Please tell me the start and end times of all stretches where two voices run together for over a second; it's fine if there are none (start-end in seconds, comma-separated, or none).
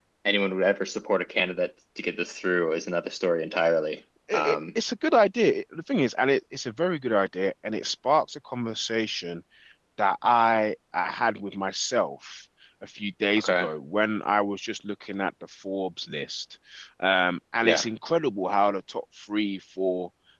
none